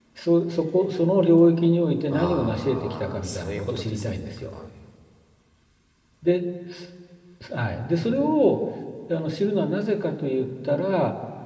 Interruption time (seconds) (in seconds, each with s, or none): 2.1 s